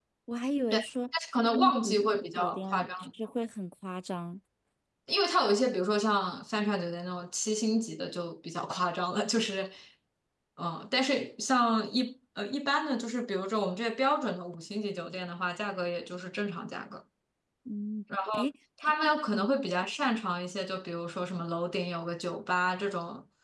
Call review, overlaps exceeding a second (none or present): present